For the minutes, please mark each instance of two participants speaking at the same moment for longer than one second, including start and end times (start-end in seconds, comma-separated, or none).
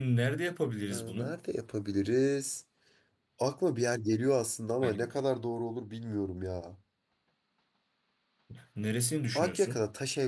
none